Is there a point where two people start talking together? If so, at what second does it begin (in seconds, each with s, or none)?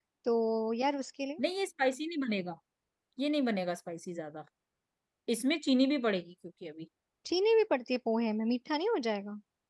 none